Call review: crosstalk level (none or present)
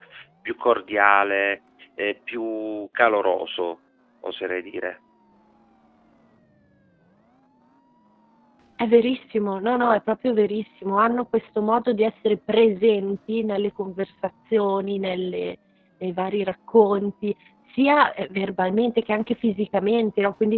none